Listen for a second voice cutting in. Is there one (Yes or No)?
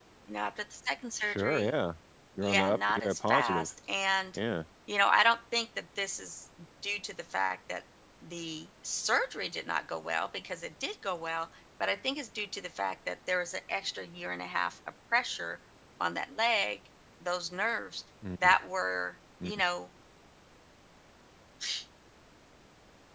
Yes